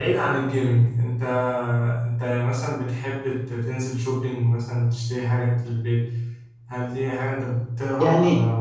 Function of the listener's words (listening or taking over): taking over